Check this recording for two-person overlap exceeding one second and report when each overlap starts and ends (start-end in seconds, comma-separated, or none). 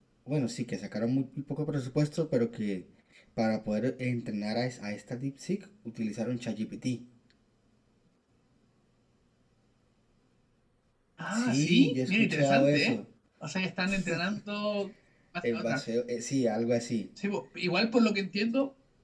11.3-13.0